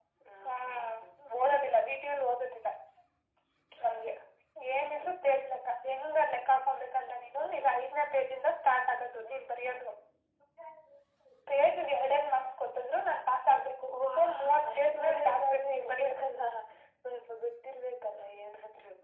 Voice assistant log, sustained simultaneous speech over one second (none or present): present